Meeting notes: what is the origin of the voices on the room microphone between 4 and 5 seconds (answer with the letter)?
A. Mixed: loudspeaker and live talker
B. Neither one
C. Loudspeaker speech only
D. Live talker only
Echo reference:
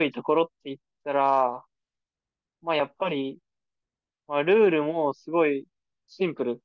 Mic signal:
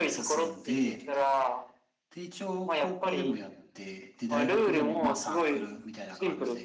A